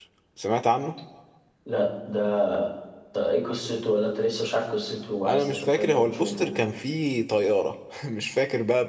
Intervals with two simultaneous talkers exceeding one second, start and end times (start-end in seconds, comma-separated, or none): 5.3-6.5